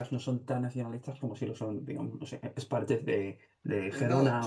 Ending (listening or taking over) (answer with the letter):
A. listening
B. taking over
B